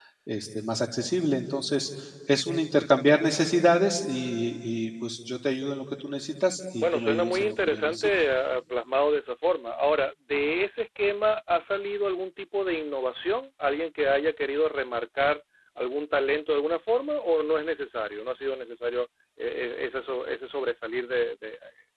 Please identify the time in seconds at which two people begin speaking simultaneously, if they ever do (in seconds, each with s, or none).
6.8 s